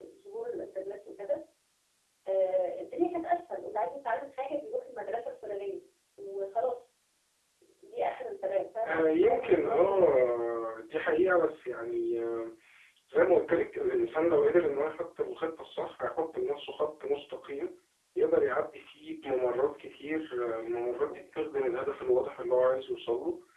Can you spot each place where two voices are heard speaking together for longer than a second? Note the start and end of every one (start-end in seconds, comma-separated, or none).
8.8-10.3